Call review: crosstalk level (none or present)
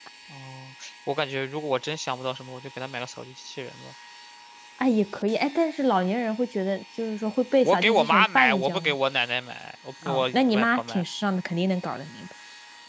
present